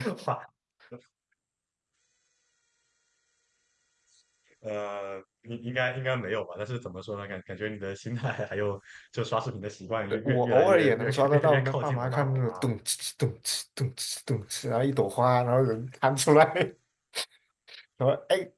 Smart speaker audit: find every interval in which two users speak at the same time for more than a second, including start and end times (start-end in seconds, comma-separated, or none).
10.2-12.7